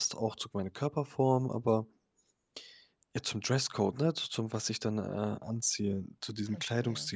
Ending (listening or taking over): listening